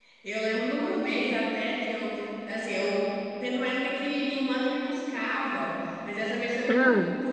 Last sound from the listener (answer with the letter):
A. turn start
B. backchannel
B